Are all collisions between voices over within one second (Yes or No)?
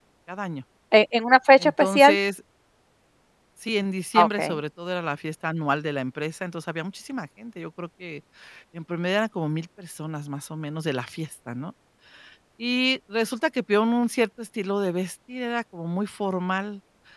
Yes